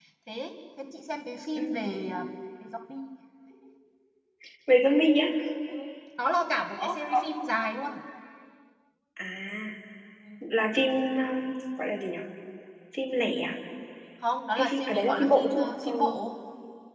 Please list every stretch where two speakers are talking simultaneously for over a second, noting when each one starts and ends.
14.6-16.1

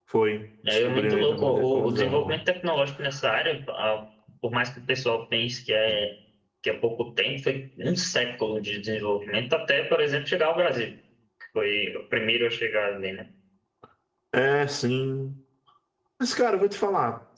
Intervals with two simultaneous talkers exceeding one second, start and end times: 0.7-2.4

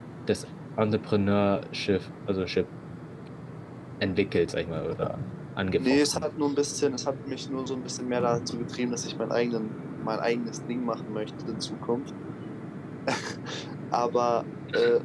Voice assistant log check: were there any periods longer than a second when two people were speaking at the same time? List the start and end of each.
none

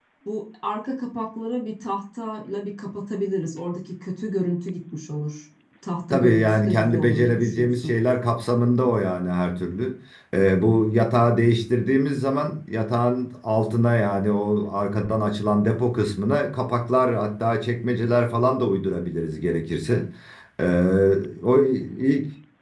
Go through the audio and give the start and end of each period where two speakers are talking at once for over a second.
6.1-7.9

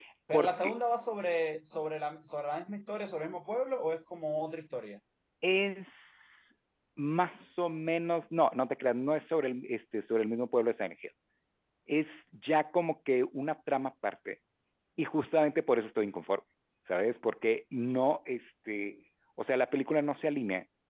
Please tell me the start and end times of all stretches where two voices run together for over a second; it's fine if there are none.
none

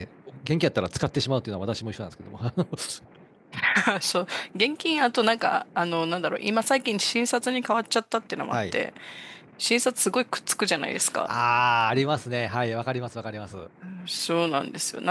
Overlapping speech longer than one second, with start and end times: none

